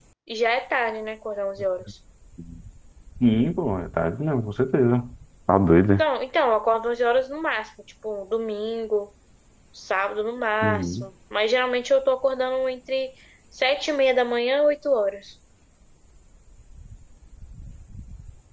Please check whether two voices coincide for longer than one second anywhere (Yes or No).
No